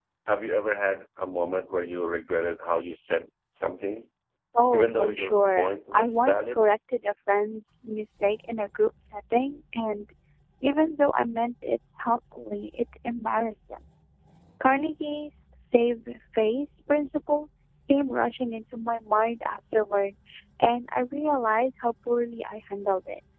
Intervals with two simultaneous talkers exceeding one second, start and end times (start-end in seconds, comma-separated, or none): 4.7-6.6